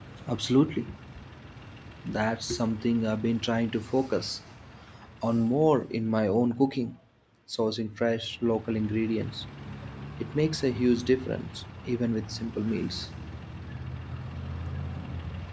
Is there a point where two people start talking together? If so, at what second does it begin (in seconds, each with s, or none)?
none